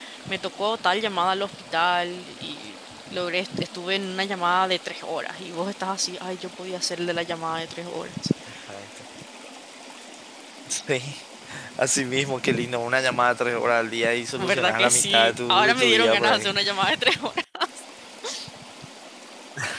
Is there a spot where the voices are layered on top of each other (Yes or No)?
Yes